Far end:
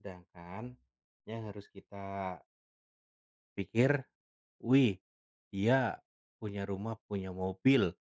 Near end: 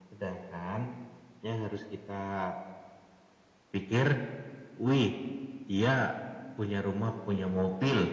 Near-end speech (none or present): none